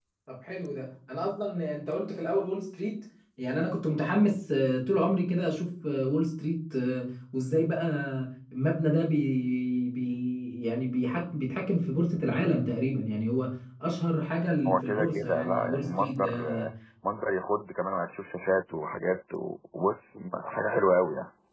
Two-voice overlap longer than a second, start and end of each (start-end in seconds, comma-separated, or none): 14.7-16.4